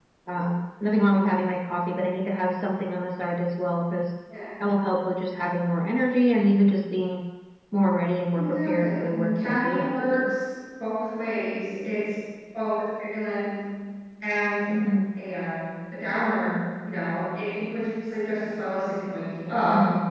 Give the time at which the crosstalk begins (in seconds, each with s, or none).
8.3 s